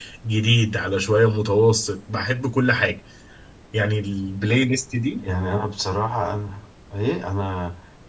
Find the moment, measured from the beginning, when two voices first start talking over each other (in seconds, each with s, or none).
none